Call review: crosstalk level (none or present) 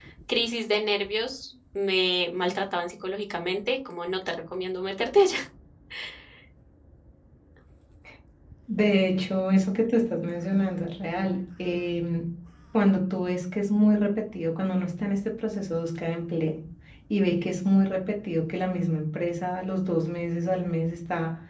none